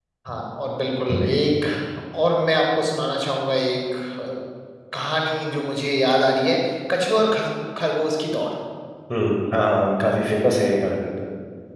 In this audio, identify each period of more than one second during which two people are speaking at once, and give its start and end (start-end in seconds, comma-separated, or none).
none